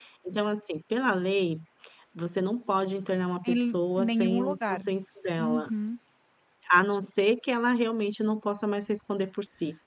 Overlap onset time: 3.5 s

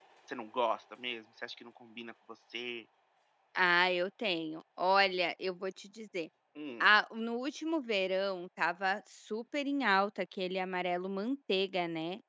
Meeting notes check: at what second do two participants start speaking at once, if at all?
none

